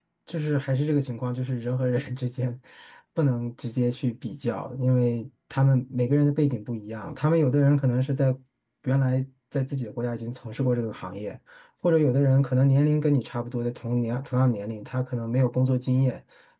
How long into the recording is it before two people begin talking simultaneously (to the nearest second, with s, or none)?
none